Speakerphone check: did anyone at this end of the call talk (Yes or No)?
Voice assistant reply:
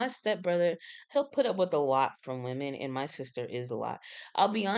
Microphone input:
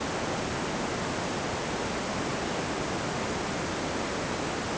No